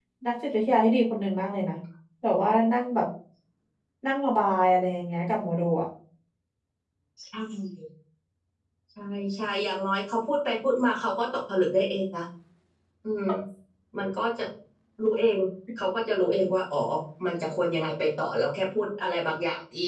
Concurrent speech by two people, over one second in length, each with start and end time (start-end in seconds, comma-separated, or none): none